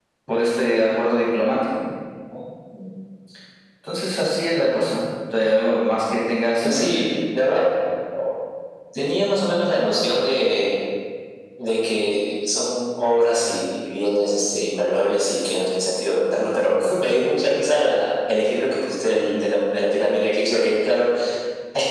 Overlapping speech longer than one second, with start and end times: none

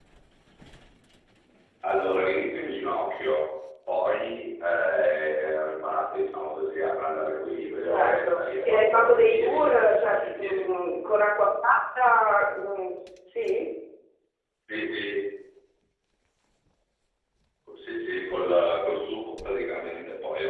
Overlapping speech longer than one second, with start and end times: 7.8-10.7

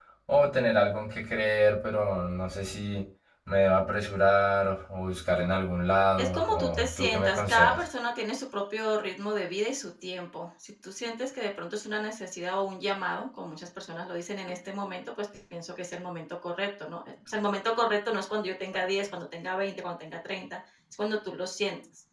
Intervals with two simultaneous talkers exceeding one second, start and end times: 6.2-7.8

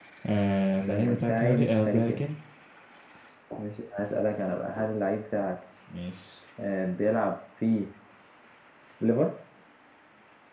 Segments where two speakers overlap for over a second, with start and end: 0.9-2.2

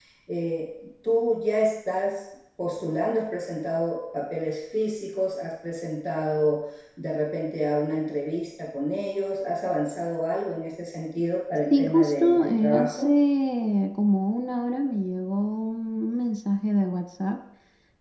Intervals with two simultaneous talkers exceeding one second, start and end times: 11.7-13.1

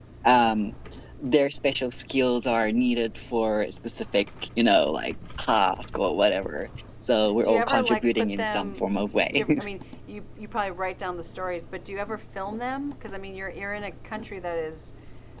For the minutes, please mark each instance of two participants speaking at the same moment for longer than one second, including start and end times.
7.4-8.8

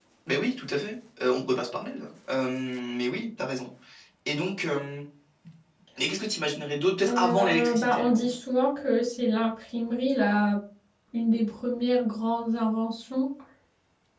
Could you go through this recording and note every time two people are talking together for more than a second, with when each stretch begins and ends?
7.1-8.3

